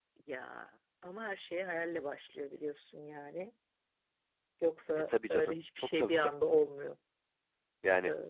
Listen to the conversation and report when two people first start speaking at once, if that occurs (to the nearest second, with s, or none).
5 s